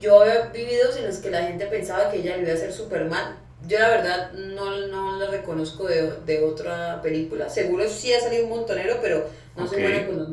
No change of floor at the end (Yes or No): Yes